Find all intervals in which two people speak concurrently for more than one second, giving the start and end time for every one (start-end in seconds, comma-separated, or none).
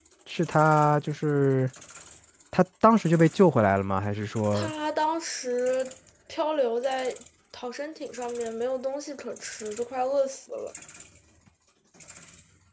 none